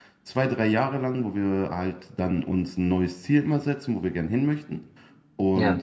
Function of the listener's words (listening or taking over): listening